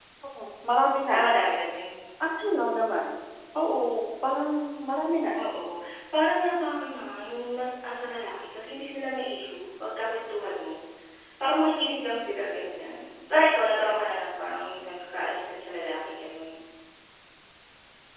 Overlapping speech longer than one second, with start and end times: none

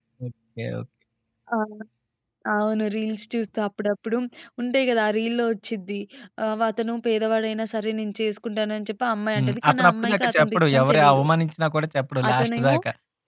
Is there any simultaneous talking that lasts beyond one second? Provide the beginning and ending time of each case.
9.4-11.2

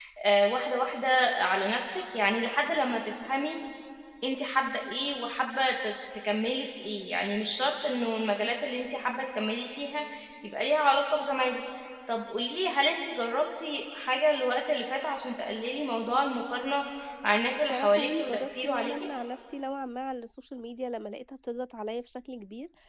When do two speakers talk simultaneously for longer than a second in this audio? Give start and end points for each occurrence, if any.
17.6-19.0

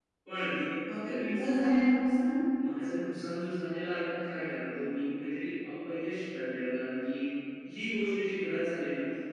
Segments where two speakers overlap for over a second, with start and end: none

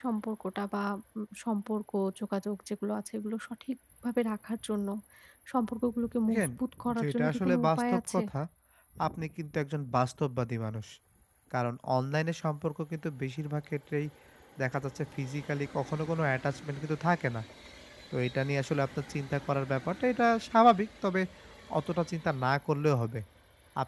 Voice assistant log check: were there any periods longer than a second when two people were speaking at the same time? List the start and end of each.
7.0-8.2

